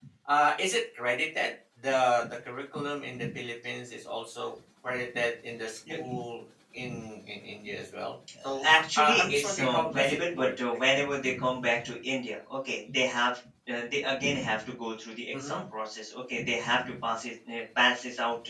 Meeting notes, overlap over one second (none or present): present